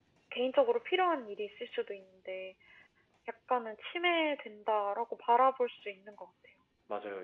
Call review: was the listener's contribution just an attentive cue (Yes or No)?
No